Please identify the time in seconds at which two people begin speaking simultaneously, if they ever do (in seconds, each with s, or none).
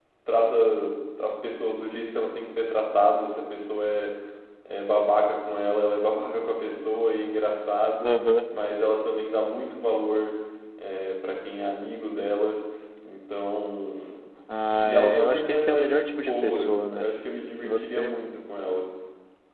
14.8 s